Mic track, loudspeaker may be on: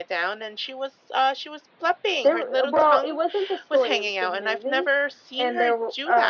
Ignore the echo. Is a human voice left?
No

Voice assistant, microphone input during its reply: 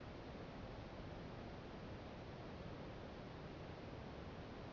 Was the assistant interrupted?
No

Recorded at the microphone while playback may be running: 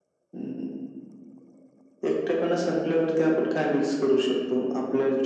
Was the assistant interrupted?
No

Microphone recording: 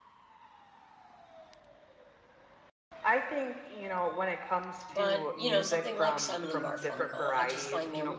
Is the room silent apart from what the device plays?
No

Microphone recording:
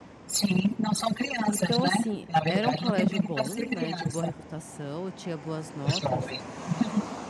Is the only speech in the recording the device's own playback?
No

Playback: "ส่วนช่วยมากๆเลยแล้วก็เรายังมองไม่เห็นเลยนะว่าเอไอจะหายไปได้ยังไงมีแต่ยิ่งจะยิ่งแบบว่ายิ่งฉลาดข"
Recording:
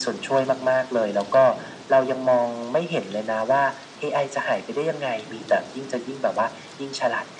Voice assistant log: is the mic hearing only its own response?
Yes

